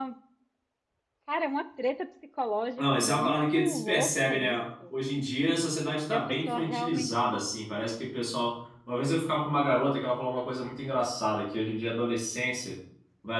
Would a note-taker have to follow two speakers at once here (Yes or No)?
Yes